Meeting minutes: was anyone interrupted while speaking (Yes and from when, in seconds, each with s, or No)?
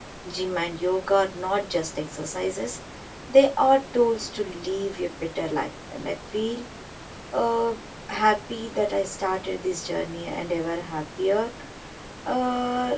No